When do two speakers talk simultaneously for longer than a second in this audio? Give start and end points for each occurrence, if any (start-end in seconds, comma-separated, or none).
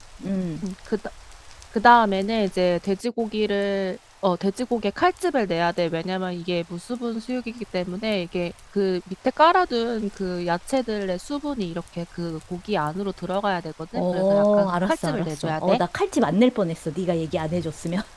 13.9-15.8